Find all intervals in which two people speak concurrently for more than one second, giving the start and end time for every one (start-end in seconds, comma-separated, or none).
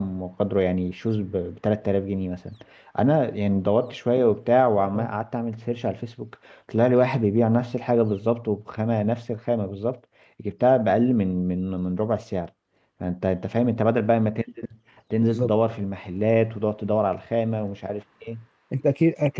none